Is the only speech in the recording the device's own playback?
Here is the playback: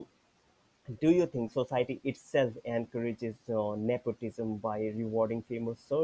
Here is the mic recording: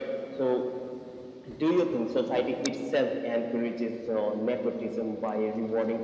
Yes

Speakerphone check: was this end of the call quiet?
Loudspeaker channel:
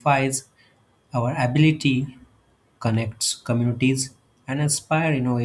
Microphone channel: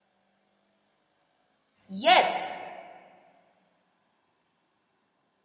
No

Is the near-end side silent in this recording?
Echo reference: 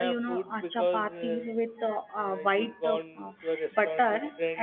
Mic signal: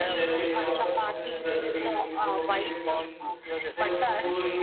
No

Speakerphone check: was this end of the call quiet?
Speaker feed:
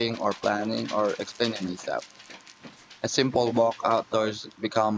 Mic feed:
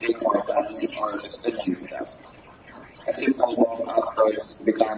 Yes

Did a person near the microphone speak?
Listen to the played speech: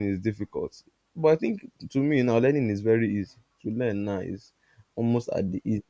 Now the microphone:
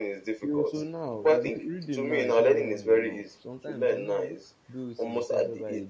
Yes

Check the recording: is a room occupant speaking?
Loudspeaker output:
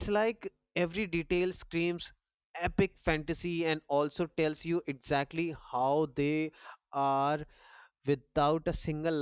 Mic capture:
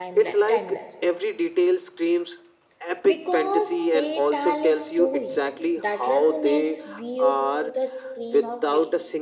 Yes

